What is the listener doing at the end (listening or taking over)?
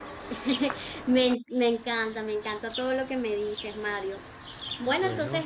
listening